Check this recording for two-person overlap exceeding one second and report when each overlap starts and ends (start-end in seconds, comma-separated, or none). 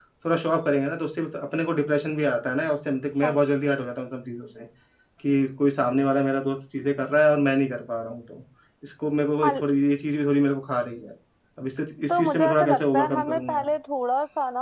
12.1-13.4